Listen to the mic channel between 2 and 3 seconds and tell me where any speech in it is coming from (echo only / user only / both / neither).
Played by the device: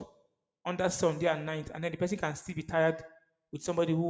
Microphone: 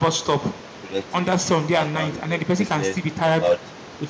both